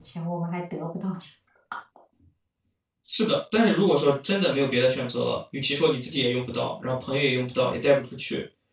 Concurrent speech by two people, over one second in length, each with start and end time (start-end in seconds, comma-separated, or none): none